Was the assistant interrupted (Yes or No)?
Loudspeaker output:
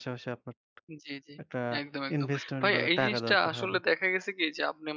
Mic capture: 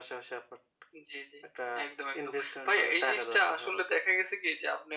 No